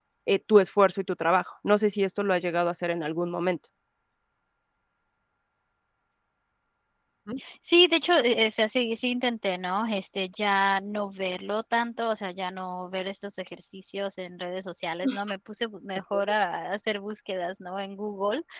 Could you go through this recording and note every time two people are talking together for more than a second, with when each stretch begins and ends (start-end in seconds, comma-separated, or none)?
none